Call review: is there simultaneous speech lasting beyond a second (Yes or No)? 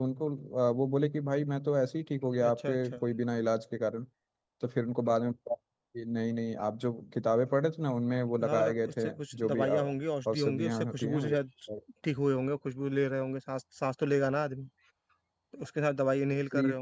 Yes